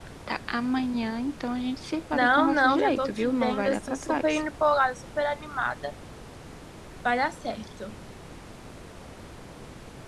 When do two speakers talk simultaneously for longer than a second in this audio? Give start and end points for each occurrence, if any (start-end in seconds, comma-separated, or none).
2.1-4.4